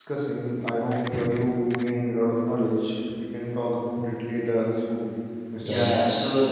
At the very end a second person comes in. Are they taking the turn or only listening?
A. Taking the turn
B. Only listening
A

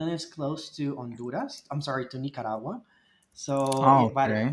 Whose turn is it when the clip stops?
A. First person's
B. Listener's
A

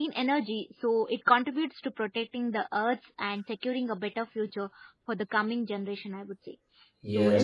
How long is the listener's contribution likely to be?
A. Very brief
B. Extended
B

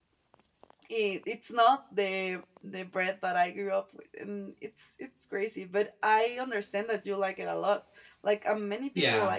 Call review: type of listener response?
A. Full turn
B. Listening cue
A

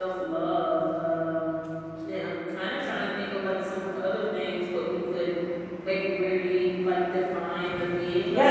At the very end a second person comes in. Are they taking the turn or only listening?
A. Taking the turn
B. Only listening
A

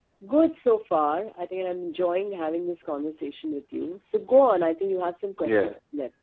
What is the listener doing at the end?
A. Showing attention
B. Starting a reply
B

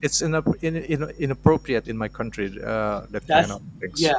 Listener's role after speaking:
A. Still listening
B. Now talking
B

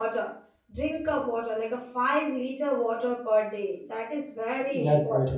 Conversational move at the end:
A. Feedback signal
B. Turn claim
B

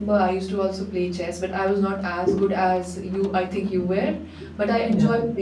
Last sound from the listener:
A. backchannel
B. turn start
A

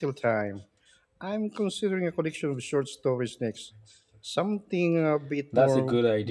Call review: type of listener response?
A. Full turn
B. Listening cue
A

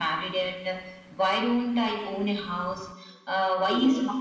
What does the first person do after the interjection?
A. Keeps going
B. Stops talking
A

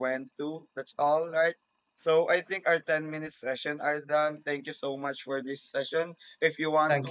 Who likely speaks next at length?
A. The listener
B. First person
B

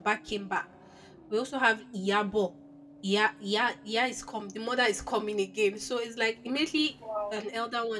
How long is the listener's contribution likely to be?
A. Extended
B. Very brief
B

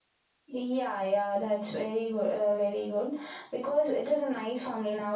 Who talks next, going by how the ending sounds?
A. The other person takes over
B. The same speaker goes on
B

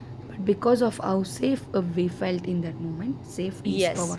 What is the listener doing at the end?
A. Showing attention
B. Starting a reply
B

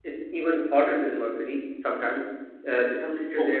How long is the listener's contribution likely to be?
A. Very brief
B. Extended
A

